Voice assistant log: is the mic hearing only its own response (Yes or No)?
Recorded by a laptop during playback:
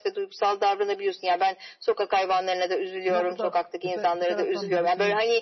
No